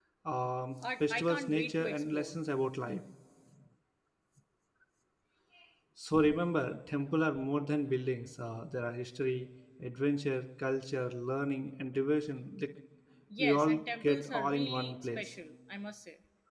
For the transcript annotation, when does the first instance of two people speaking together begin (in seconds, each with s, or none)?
0.8 s